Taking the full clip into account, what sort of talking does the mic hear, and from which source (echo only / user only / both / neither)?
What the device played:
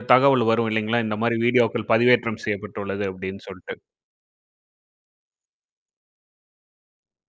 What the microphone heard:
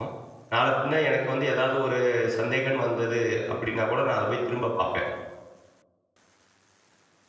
user only